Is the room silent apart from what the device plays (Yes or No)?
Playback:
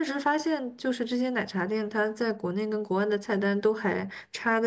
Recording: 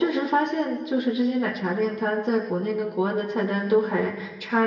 Yes